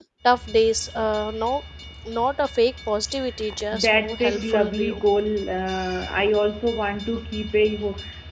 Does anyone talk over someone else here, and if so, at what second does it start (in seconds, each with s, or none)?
3.7 s